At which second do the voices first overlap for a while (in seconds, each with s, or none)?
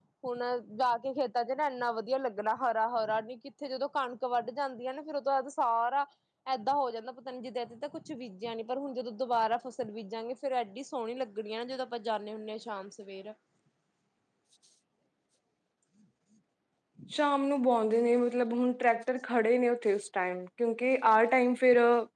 none